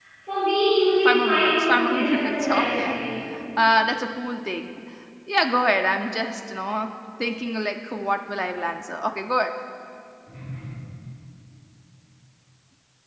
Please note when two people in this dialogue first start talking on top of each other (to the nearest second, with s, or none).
1 s